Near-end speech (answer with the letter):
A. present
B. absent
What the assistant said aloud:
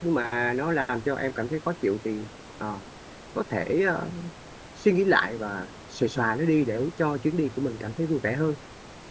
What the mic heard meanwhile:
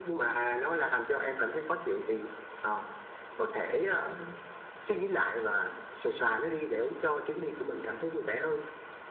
B